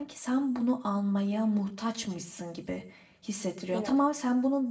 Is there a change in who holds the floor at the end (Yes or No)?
No